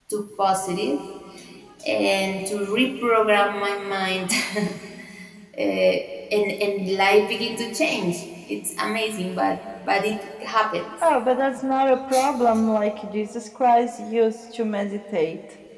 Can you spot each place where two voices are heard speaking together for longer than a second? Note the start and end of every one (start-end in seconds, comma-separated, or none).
none